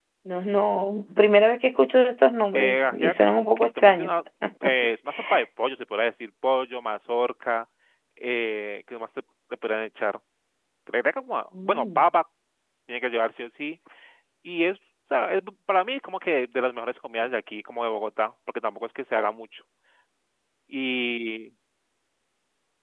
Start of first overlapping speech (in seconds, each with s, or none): 2.5 s